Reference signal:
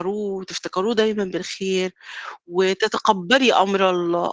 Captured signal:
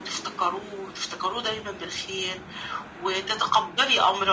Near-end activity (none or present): none